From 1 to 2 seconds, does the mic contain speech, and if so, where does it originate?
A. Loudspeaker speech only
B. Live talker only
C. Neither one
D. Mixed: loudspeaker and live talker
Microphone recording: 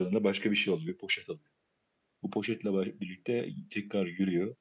B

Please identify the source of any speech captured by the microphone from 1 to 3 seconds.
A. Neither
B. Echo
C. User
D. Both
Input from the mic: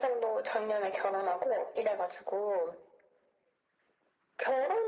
B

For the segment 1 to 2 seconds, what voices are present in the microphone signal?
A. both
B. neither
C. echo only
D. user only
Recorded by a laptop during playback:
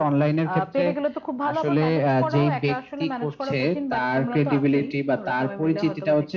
C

